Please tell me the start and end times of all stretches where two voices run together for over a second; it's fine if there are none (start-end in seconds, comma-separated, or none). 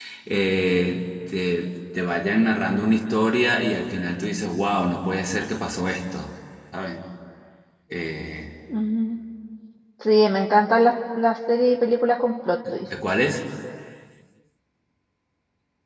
none